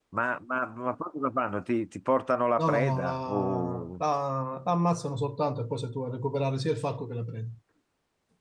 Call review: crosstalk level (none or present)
present